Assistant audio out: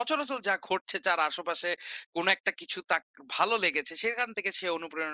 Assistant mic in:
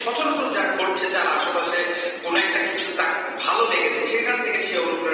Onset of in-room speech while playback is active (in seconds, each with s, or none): none